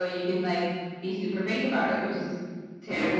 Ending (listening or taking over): taking over